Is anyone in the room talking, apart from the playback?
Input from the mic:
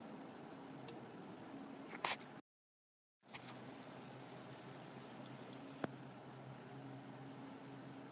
No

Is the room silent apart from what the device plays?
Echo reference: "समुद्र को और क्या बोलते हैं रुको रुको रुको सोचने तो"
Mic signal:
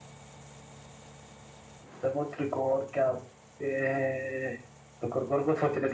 Yes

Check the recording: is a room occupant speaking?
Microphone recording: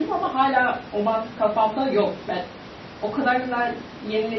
Yes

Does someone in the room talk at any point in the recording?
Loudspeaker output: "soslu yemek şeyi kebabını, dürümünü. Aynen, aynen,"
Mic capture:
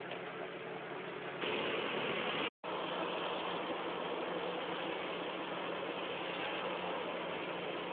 No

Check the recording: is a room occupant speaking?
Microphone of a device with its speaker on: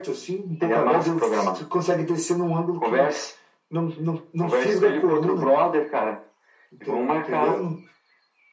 No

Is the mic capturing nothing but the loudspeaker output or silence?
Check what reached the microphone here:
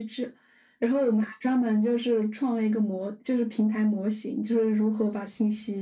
Yes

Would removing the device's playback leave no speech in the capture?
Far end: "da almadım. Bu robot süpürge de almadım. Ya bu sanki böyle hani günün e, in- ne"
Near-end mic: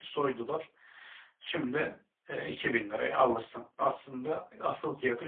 No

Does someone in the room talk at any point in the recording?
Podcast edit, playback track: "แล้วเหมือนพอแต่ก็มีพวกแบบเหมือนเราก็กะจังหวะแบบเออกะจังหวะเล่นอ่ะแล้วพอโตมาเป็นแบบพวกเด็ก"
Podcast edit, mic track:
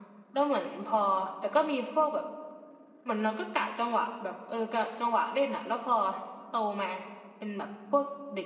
No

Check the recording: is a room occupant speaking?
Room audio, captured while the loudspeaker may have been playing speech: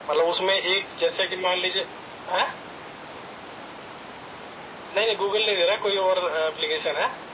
No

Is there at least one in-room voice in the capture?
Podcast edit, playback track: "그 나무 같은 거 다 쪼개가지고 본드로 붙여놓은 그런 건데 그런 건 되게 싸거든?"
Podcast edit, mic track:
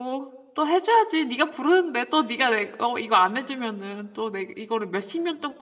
Yes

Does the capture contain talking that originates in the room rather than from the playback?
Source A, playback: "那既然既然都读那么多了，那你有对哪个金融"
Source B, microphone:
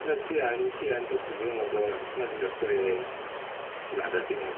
No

